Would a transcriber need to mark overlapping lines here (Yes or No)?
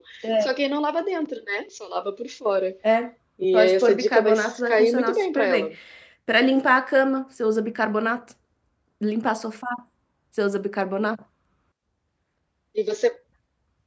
Yes